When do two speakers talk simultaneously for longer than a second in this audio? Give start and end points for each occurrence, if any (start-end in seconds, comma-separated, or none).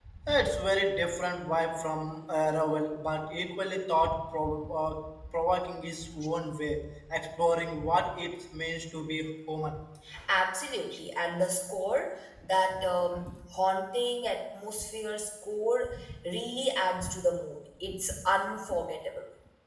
none